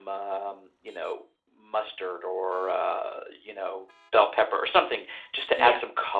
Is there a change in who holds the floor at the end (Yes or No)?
No